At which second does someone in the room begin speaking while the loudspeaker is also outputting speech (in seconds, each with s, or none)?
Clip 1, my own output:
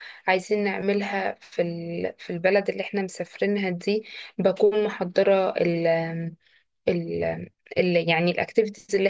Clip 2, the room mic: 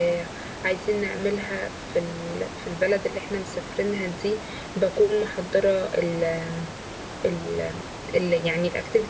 none